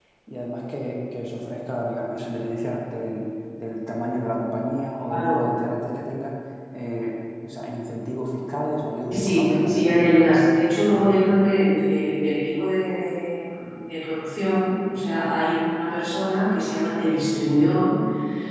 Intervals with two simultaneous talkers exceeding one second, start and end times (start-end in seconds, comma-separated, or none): 9.1-10.3